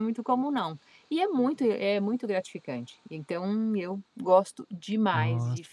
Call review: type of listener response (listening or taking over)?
listening